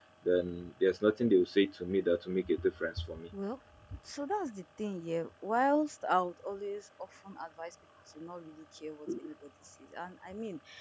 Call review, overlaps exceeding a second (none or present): none